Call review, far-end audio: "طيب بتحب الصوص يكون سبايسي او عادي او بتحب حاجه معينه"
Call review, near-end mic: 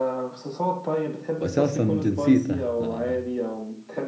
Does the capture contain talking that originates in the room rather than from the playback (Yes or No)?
Yes